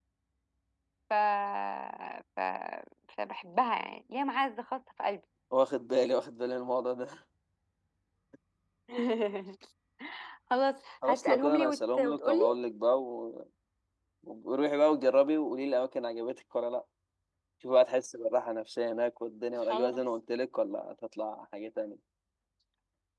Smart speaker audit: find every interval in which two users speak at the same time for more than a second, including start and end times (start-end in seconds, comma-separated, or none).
11.0-12.6